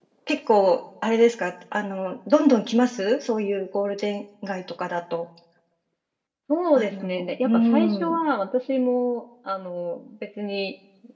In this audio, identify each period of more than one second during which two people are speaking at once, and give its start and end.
6.8-8.2

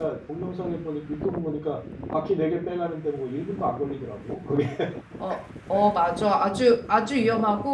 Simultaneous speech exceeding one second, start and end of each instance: none

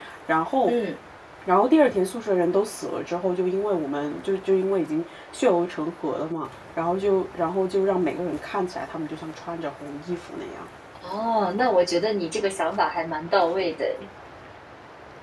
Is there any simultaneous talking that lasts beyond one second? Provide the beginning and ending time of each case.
none

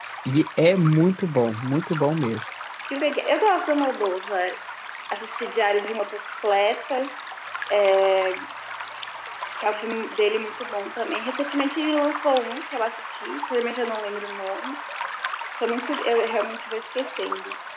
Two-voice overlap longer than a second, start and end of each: none

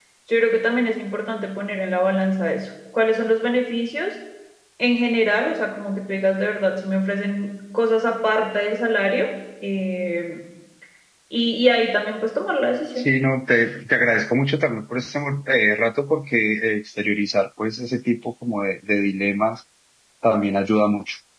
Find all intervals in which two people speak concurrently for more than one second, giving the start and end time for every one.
none

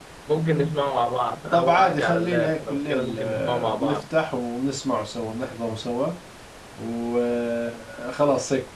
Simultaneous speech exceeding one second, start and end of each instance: 1.5-4.0

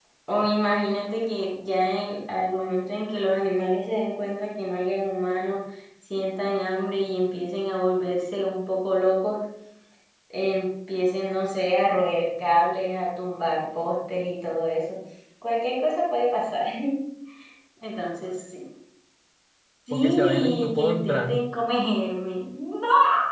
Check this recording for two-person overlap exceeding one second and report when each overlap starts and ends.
19.9-21.4

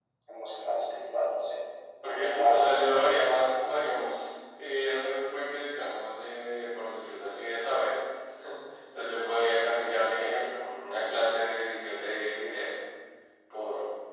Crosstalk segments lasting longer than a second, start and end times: 2.0-3.3

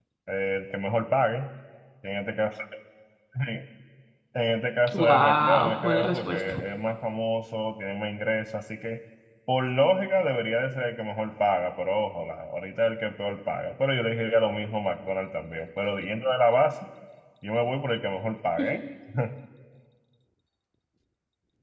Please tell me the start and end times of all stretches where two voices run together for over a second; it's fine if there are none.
4.9-6.6

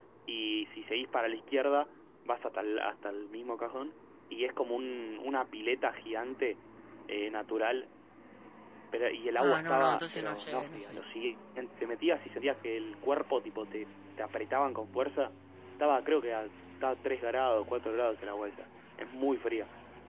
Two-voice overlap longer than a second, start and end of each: 9.4-11.0

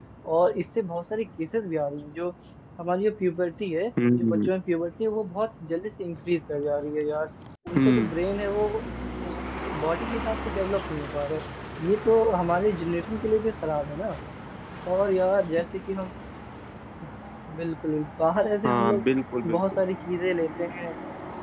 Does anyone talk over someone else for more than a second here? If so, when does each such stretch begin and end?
none

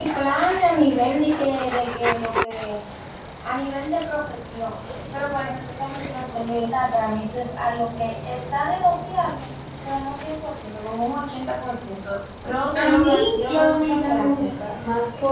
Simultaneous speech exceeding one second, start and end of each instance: 12.8-14.7

